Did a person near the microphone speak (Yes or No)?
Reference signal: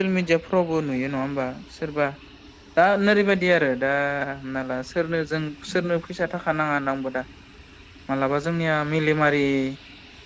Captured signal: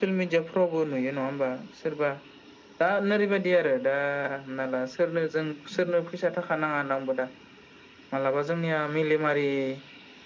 No